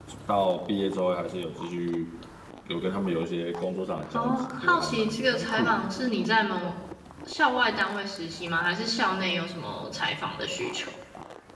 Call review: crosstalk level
present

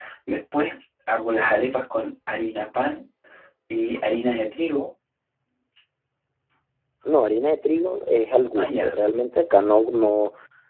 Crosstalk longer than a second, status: none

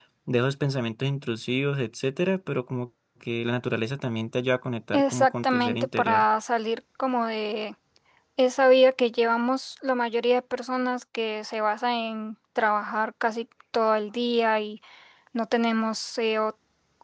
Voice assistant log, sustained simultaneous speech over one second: present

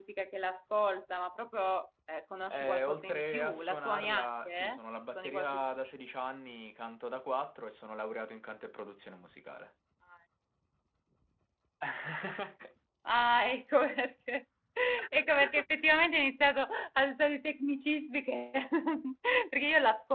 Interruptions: present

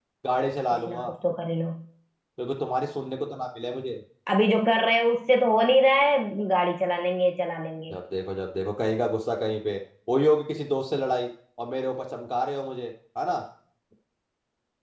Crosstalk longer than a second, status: none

